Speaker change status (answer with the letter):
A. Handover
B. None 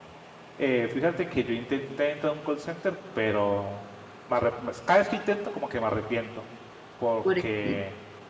B